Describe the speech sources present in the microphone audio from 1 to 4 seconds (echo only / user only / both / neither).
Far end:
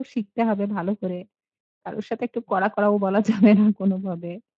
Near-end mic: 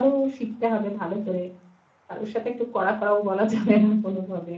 echo only